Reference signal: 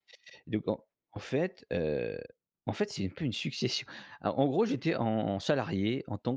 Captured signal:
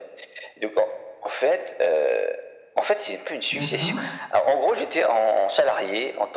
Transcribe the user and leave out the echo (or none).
D'accord.